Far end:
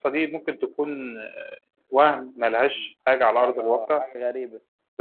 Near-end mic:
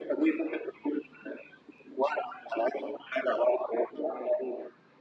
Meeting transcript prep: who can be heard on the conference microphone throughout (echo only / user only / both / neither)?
echo only